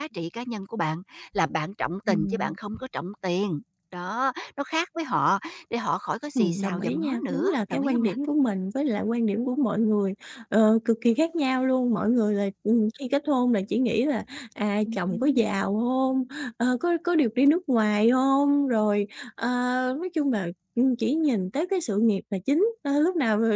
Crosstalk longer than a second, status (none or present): present